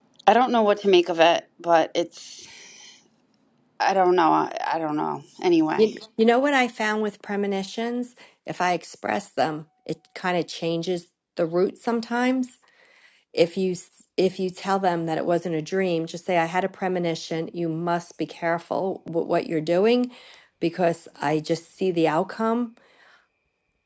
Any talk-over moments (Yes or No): No